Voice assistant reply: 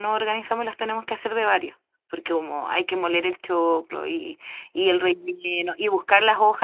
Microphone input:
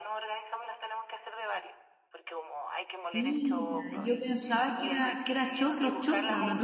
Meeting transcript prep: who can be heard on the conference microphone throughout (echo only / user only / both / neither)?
both